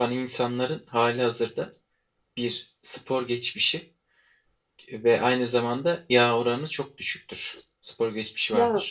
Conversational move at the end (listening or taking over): listening